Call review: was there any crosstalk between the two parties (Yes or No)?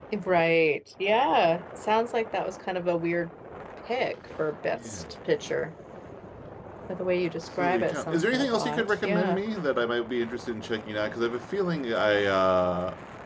Yes